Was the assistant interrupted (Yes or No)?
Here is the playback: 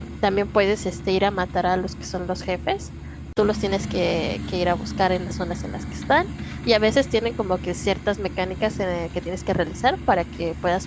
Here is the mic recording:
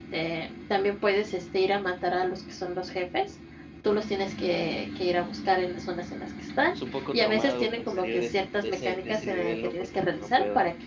Yes